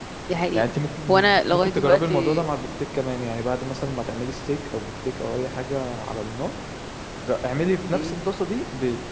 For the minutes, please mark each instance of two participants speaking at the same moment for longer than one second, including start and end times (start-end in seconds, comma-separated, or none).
1.1-2.5